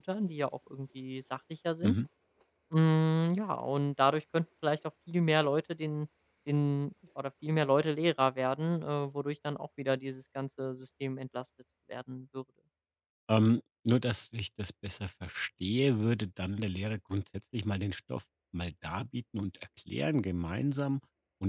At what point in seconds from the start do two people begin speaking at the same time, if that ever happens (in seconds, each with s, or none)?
none